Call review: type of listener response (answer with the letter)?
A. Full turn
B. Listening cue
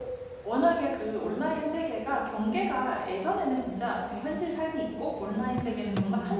B